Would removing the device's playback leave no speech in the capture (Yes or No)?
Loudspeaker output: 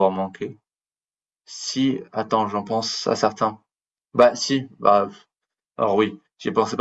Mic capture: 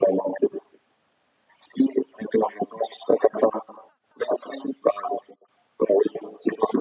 Yes